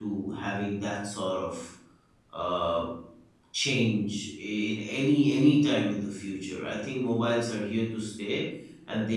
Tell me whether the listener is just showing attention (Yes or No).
Yes